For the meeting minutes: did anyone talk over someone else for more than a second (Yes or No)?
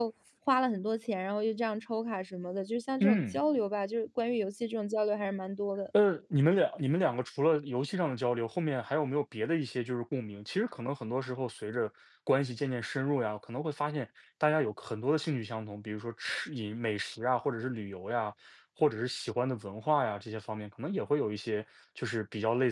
No